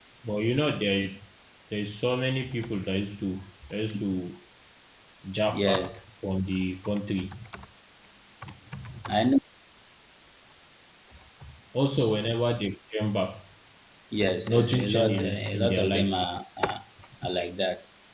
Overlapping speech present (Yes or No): Yes